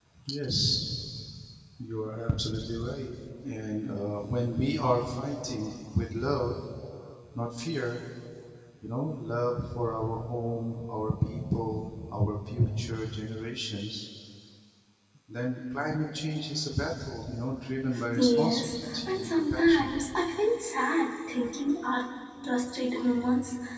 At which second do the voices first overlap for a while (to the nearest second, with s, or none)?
18 s